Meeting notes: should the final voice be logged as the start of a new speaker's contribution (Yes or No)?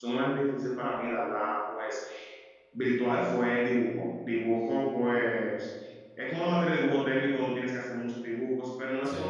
No